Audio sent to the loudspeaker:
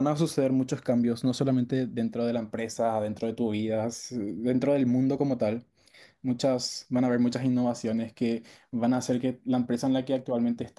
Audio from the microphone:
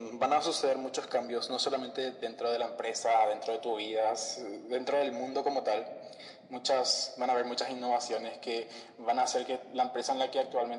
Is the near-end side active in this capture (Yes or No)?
No